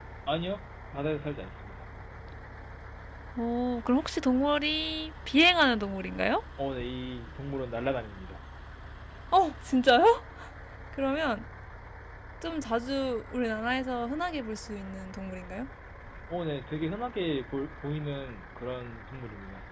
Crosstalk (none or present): none